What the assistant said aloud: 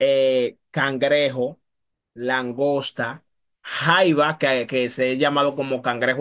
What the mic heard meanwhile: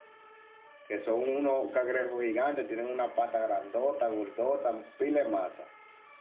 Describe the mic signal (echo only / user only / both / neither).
user only